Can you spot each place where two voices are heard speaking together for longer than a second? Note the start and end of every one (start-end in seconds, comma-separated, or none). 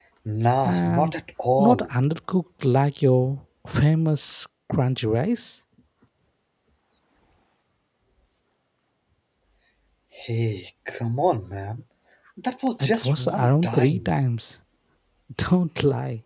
12.8-14.1